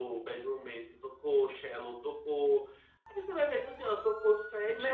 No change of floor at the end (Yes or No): No